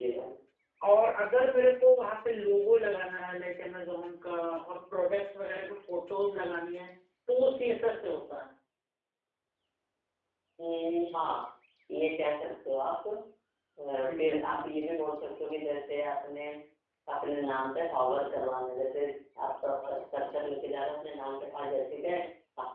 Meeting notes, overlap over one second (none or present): none